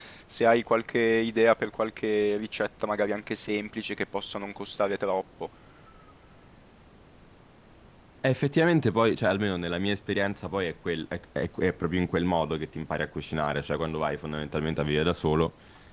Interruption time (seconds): none

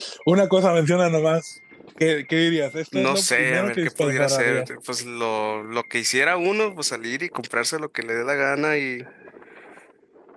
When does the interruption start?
2.9 s

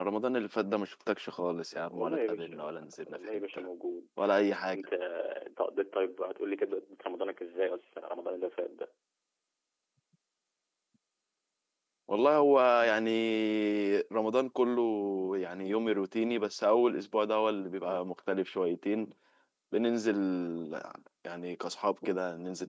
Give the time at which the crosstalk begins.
1.9 s

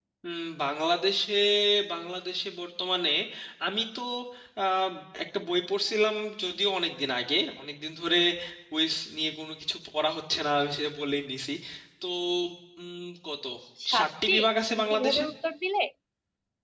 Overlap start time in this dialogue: 14.0 s

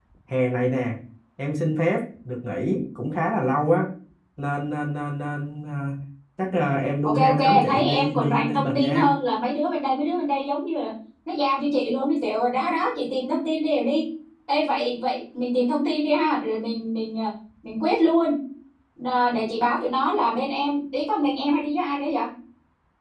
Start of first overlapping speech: 7.0 s

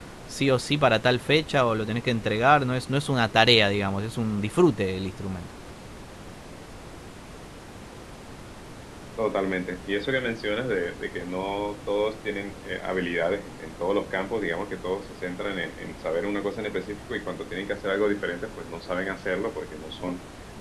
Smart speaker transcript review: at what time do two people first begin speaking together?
none

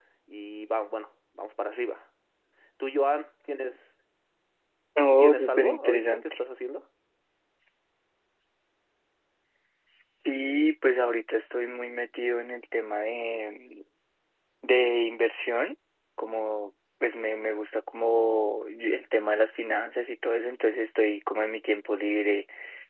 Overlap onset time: 5.1 s

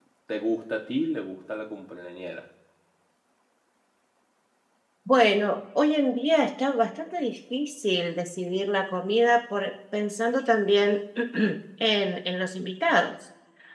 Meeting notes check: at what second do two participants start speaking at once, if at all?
none

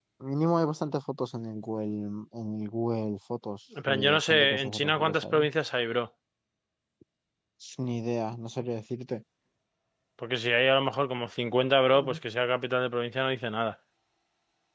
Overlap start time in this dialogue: 3.9 s

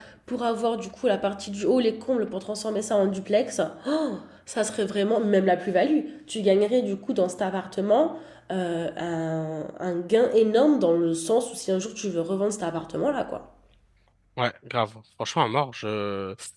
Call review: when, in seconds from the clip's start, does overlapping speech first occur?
none

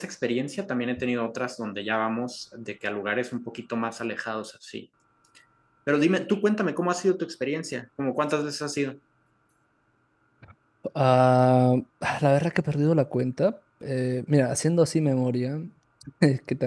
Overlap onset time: none

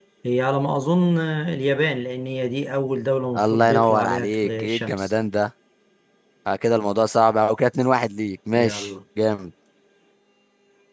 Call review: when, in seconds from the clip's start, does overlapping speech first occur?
3.4 s

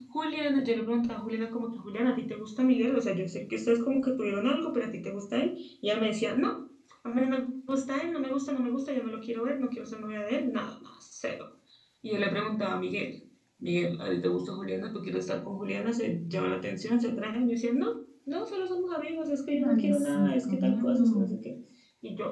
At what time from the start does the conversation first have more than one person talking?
19.5 s

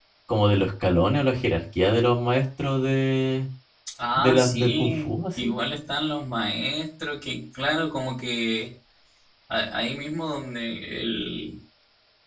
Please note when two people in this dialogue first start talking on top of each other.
4.2 s

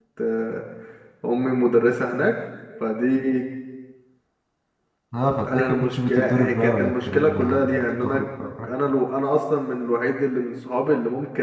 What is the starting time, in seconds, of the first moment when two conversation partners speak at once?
5.5 s

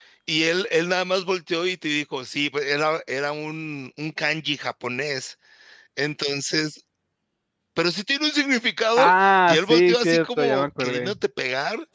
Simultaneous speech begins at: 9.0 s

